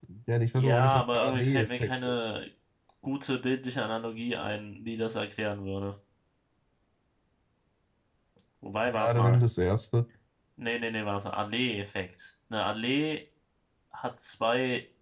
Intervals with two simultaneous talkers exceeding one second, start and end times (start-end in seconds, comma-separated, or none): 0.5-2.1